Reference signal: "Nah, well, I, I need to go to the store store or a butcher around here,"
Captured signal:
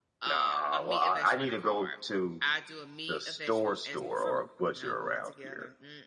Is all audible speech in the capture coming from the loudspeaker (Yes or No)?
No